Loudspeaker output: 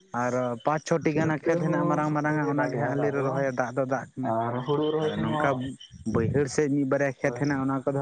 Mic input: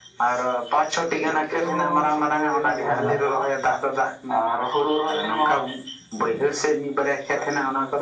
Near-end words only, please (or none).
ᱚᱸ